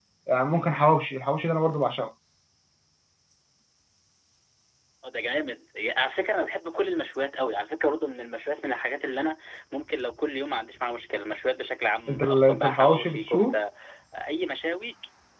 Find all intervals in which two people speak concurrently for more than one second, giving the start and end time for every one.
12.1-13.6

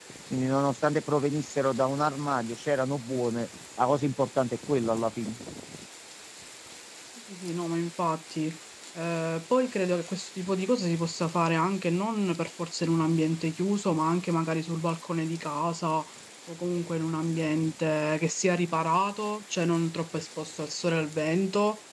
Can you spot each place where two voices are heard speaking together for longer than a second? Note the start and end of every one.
none

